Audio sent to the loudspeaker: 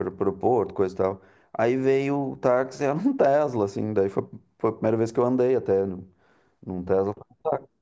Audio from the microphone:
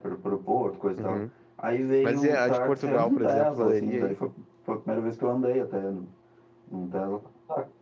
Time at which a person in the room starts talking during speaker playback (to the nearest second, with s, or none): 1 s